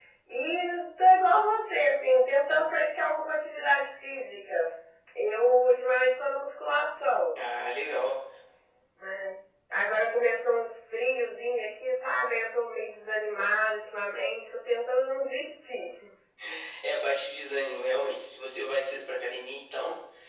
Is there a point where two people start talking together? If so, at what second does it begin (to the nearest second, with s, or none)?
none